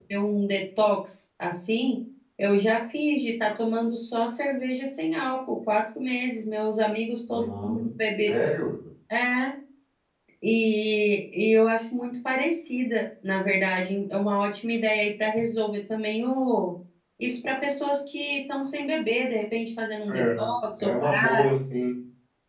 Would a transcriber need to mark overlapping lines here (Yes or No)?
Yes